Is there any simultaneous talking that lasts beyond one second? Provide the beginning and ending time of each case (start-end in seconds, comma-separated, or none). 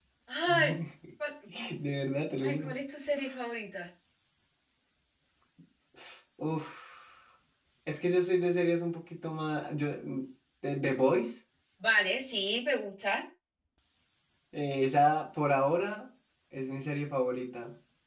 none